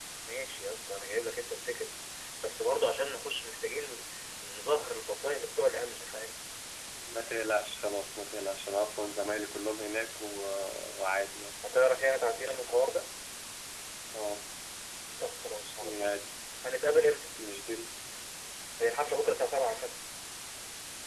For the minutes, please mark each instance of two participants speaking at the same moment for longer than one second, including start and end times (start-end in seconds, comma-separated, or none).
none